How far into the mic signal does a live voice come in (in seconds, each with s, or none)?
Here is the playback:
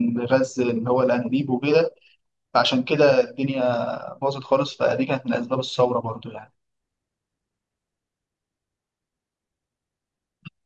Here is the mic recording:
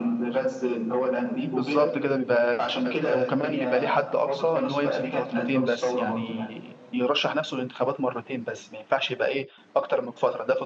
1.5 s